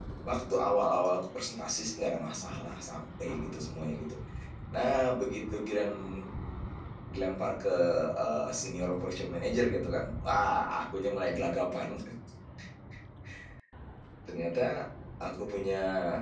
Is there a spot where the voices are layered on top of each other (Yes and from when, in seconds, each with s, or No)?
No